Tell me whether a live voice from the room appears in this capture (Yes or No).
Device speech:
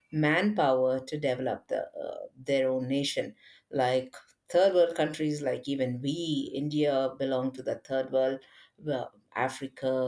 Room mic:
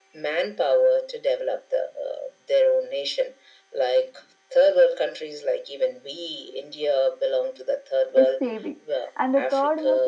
Yes